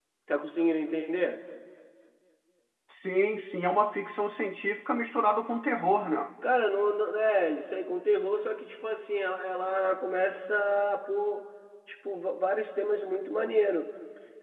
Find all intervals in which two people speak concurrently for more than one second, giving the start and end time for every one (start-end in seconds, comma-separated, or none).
none